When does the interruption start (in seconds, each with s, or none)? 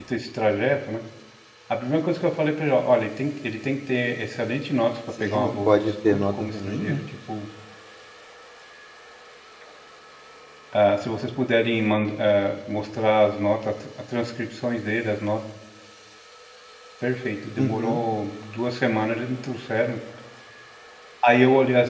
5.2 s